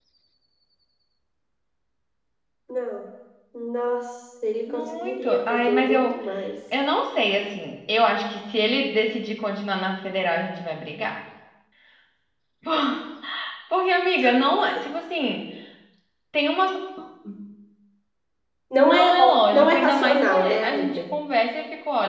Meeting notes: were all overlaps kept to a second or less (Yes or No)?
No